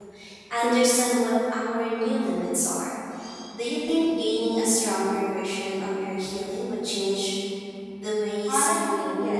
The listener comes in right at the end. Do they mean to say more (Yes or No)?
Yes